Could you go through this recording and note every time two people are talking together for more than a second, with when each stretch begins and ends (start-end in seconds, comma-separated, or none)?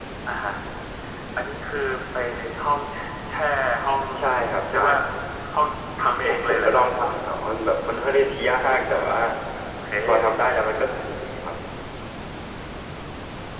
none